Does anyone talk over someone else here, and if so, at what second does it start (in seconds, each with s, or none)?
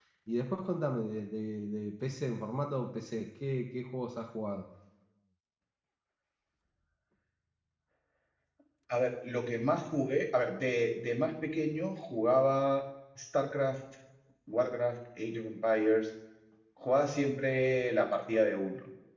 none